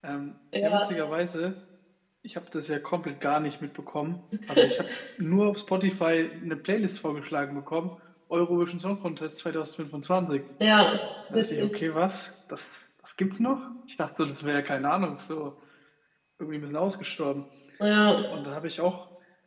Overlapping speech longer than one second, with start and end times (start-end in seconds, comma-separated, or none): none